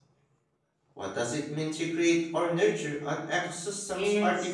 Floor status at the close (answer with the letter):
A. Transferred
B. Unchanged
A